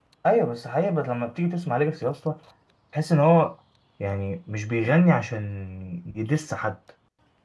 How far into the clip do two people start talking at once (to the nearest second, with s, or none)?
none